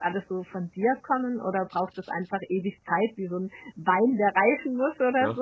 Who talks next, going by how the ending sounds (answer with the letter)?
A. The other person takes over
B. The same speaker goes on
A